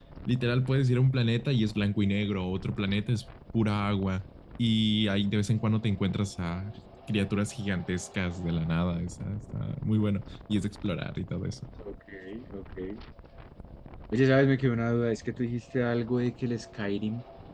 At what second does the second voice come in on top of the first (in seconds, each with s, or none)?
none